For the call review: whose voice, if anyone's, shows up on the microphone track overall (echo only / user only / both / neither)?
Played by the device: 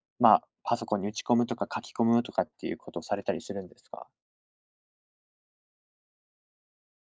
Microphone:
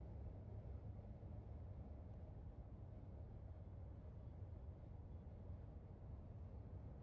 neither